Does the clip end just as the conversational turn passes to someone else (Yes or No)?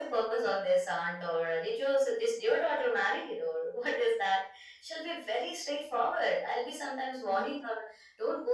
No